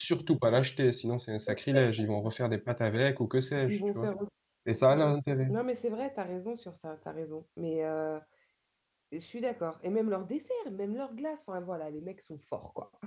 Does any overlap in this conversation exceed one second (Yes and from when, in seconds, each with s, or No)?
No